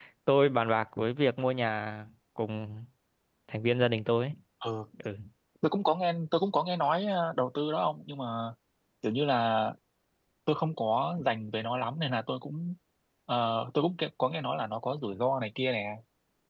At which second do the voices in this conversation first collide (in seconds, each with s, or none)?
none